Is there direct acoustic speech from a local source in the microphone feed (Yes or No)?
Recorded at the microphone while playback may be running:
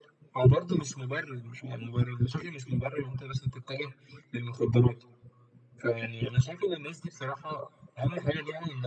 No